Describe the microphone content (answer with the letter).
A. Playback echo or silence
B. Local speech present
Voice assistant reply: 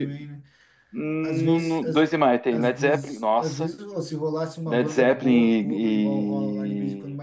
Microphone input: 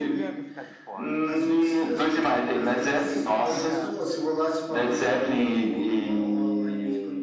B